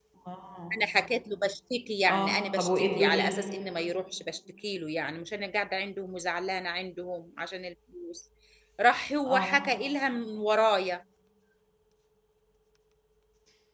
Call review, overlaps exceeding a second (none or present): present